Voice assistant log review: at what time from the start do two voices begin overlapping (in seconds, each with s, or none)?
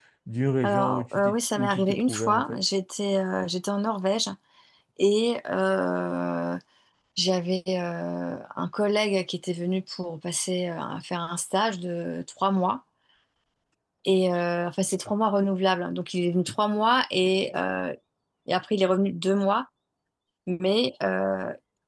0.6 s